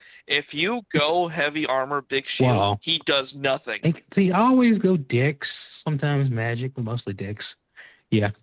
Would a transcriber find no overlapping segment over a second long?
Yes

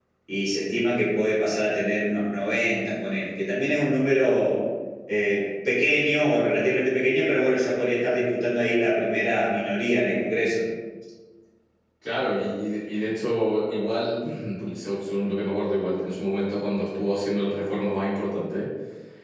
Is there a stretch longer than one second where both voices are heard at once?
No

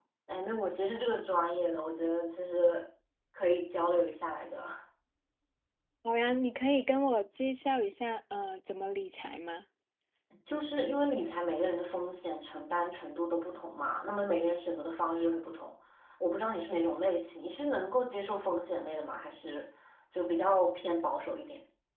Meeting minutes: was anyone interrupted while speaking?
No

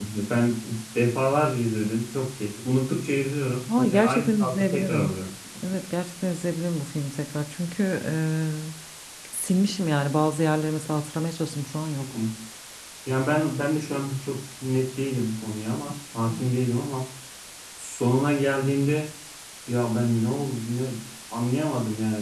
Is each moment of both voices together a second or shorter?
No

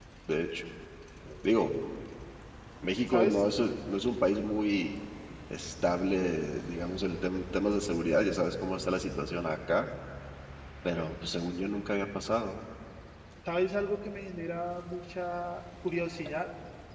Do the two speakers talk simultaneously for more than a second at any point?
No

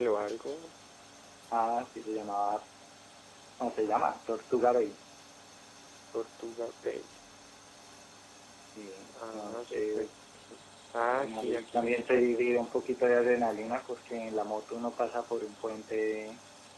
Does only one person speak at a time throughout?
No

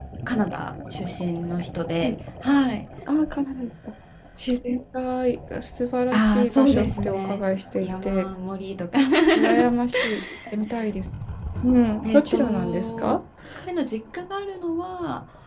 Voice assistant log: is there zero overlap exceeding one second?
No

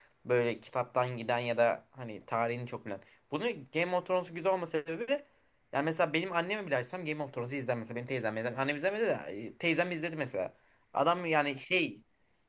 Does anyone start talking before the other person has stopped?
No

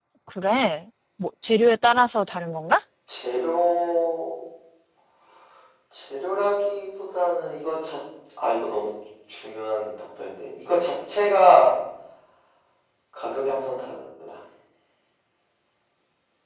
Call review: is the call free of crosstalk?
Yes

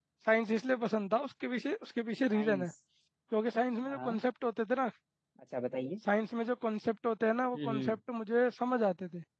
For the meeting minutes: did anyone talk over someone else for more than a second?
No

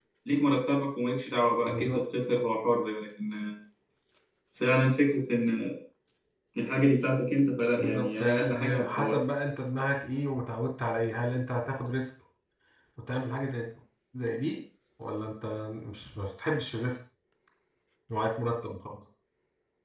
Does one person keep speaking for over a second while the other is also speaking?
Yes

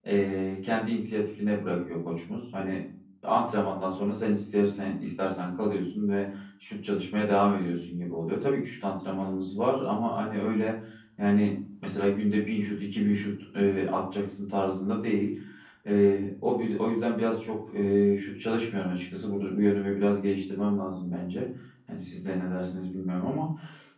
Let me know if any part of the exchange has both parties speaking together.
No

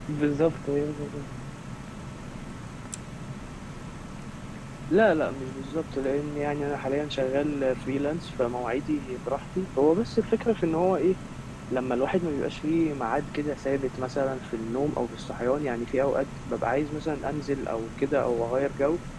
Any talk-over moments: No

